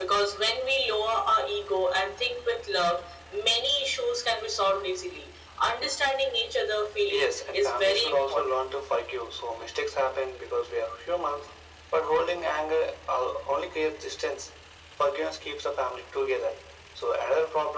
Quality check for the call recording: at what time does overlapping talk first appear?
7 s

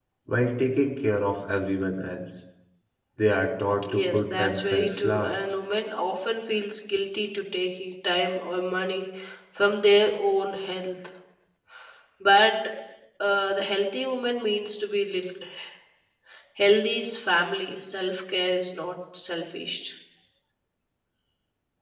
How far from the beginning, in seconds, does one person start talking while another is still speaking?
4 s

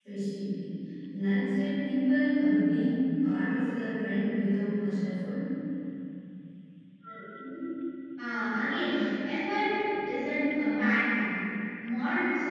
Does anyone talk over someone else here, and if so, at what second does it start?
none

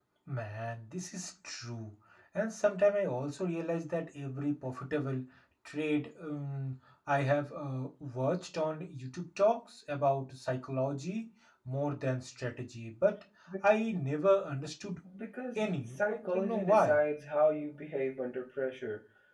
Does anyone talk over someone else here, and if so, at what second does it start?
16 s

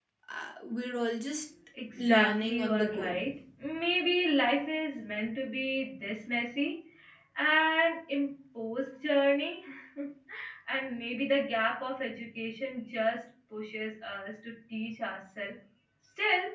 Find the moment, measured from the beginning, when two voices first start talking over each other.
2 s

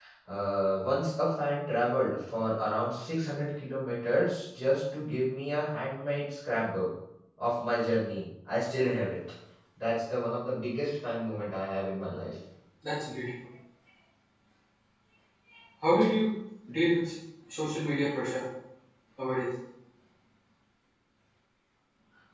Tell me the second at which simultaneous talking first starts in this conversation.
none

